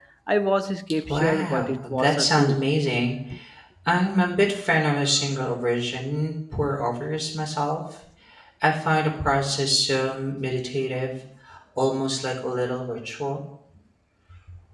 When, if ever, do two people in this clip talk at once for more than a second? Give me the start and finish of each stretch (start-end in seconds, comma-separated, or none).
1.1-2.6